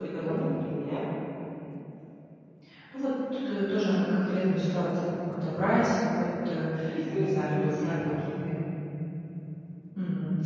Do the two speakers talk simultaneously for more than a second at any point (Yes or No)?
Yes